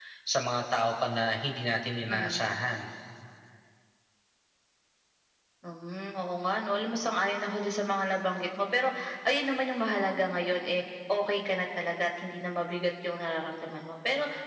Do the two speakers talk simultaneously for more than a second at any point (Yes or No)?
No